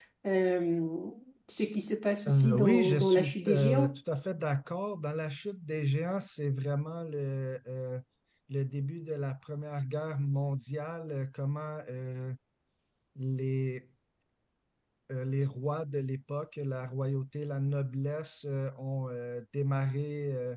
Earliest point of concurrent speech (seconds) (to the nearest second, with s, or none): 2 s